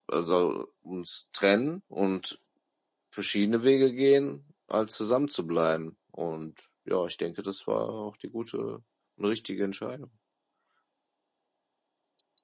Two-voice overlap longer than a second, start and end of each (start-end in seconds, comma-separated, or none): none